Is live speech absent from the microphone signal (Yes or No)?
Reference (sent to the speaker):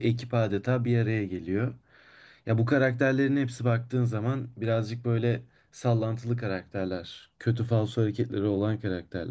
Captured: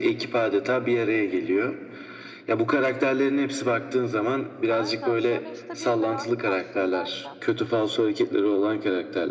No